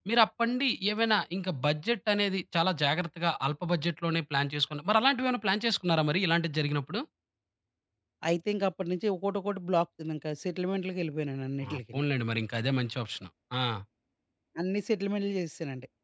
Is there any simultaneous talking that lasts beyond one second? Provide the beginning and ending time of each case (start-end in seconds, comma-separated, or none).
none